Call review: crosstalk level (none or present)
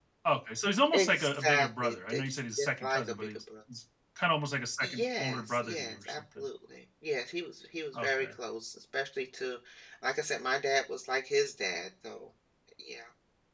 present